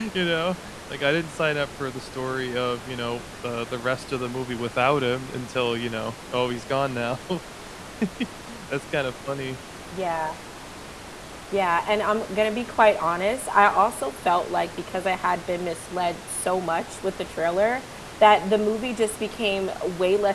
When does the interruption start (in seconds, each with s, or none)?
none